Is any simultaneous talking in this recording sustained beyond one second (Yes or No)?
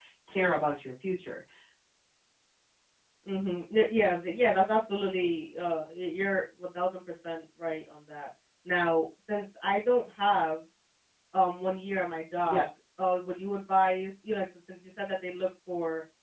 No